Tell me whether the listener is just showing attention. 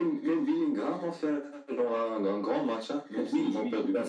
No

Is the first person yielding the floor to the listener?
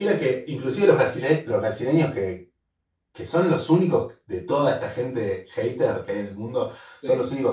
No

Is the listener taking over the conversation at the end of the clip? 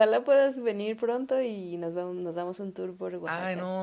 Yes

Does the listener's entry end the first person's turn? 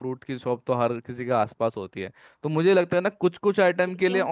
No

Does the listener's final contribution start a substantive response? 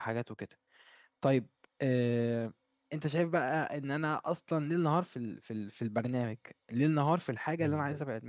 Yes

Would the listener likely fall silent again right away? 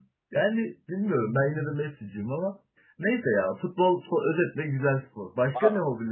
No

